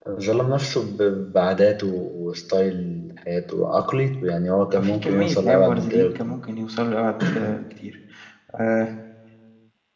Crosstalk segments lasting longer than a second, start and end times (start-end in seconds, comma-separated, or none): 4.8-6.2